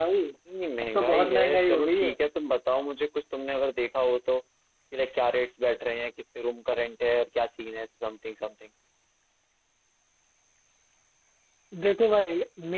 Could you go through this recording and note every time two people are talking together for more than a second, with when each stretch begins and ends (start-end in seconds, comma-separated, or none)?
0.9-2.1